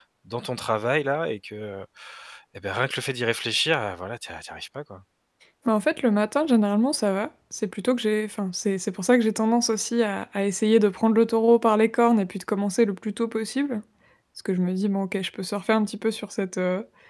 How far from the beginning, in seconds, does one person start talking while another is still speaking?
none

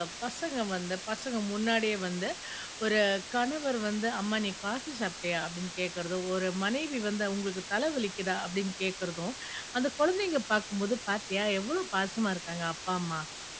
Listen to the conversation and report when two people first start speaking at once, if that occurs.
none

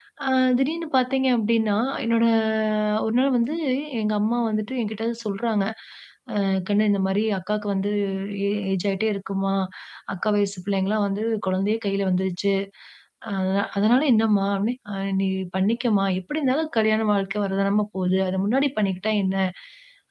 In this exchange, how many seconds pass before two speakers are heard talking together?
none

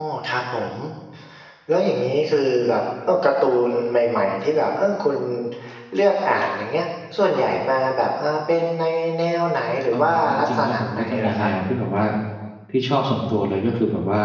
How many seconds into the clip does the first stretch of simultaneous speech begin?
9.9 s

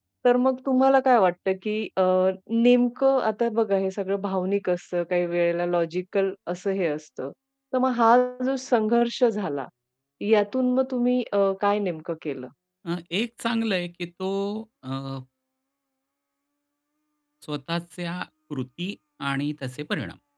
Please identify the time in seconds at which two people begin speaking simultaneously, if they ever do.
none

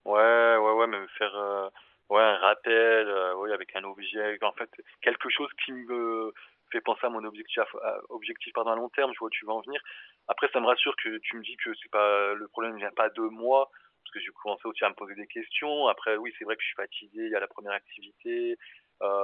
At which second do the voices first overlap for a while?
none

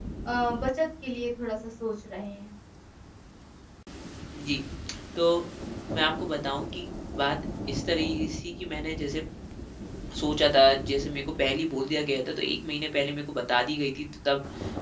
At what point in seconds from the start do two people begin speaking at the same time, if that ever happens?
none

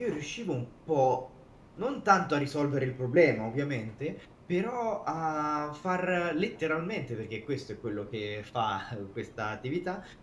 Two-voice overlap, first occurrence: none

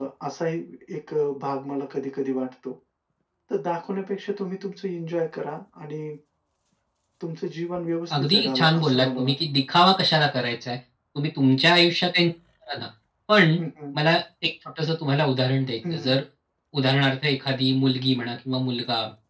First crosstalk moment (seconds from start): 8.1 s

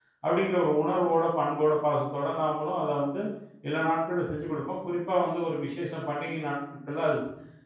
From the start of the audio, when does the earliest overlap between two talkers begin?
none

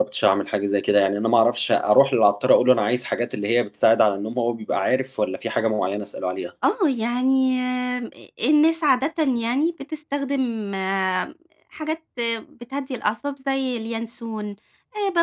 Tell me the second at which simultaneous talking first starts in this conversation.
none

